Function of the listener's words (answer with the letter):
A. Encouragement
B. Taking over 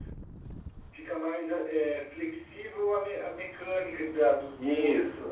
B